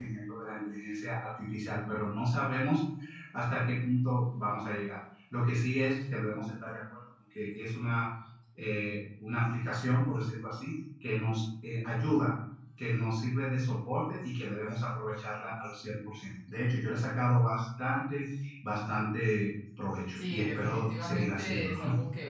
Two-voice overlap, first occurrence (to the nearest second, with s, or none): 20 s